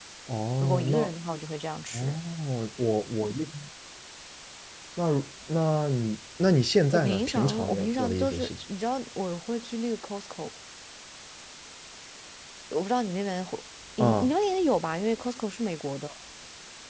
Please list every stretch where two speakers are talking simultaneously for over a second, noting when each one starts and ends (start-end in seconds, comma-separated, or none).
6.9-8.5